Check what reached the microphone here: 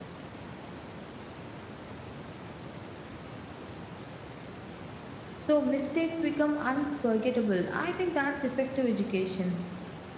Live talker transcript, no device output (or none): So mistakes become unforgettable. I think that's effective education.